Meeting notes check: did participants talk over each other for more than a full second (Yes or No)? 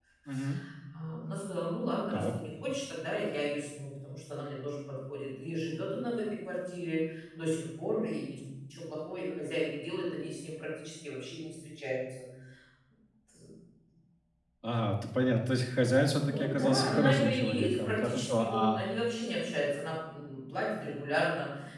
Yes